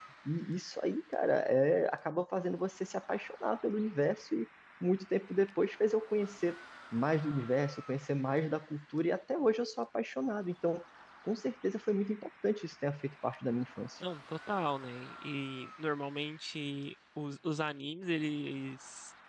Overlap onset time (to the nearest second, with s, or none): none